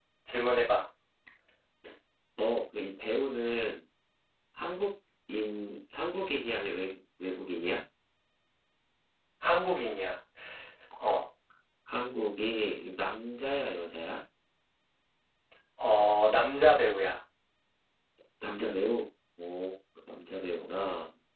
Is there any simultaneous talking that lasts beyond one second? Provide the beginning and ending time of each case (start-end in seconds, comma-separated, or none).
none